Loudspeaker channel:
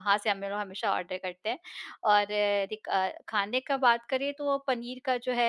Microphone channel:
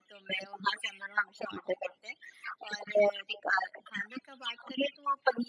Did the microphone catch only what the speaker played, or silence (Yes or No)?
Yes